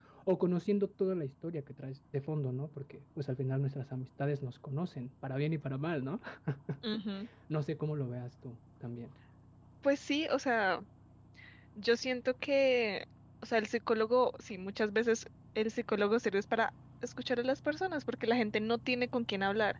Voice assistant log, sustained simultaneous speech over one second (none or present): none